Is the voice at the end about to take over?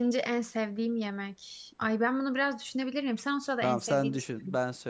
Yes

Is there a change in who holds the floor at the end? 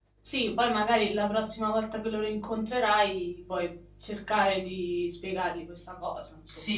Yes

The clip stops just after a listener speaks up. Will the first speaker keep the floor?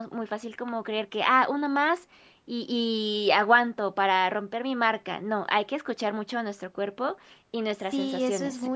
No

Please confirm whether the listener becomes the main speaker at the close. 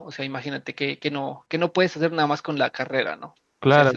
Yes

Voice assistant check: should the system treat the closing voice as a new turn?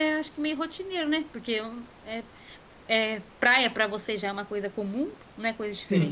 Yes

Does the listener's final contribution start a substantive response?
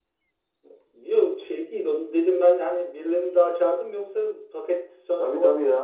Yes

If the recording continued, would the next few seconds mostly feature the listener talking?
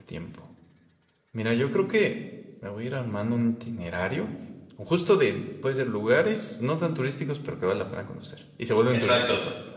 Yes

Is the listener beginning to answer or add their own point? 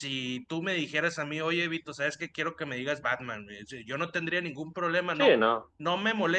No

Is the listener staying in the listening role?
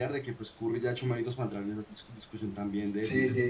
No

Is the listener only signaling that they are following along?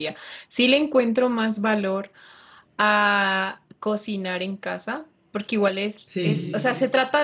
Yes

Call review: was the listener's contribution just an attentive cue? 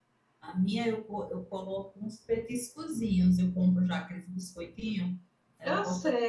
No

